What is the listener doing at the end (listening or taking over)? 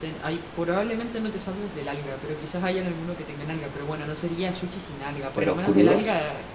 listening